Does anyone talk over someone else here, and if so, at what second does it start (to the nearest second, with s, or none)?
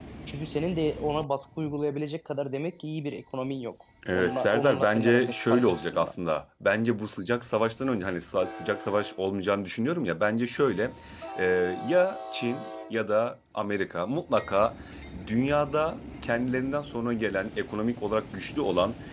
4 s